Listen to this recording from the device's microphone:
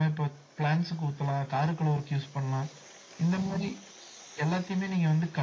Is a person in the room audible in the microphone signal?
No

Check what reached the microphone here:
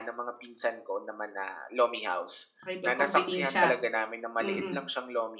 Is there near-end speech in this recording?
Yes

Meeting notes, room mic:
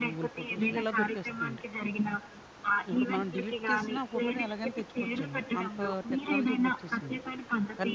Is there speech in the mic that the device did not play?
Yes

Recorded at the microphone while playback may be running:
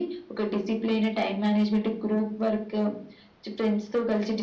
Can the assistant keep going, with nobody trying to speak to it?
Yes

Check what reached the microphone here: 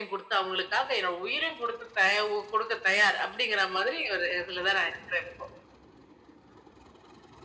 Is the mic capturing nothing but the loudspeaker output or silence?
Yes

